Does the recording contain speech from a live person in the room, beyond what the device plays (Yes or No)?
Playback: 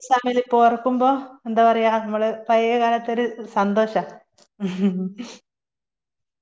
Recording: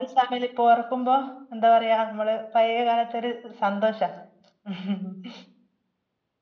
No